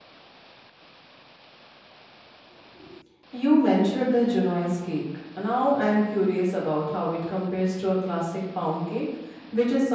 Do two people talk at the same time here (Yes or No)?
No